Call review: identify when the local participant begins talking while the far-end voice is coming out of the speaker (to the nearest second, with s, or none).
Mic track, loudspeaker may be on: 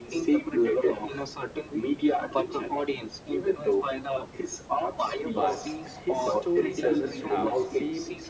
5 s